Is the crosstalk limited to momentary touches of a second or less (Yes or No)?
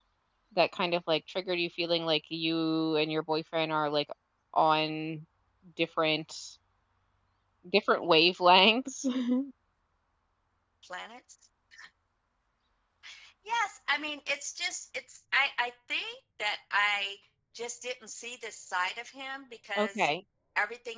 Yes